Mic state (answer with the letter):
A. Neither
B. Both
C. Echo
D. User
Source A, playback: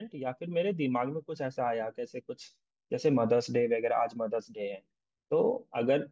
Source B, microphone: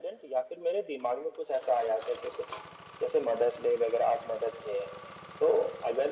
C